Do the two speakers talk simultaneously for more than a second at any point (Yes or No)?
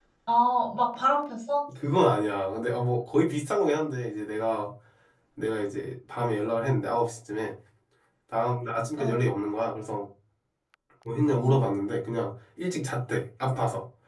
No